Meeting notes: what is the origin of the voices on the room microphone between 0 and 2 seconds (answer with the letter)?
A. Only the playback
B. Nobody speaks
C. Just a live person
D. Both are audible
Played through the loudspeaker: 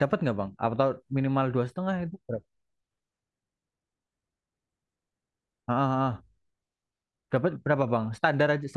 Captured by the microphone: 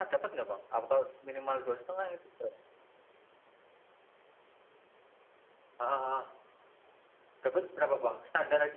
A